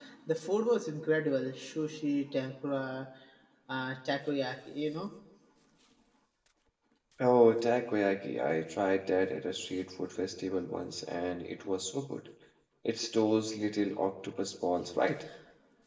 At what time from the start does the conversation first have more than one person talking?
none

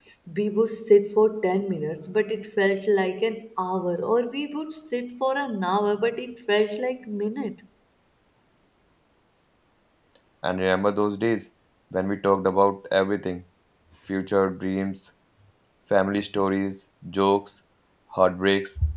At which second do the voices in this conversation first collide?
none

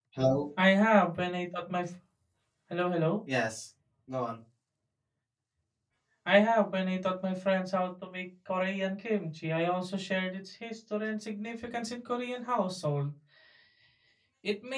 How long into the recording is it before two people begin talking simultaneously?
none

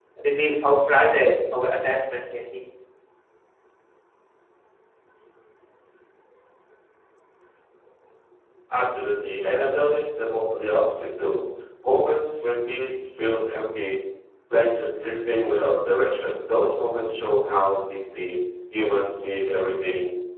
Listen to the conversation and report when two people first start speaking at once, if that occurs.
none

